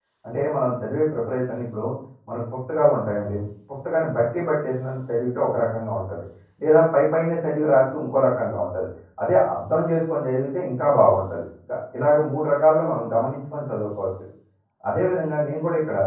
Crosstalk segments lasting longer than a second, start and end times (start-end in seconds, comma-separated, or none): none